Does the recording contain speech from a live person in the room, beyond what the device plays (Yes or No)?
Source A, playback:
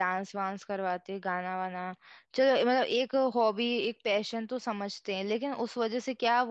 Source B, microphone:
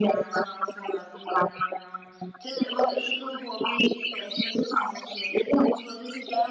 No